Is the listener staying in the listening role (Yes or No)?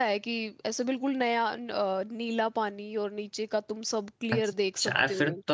No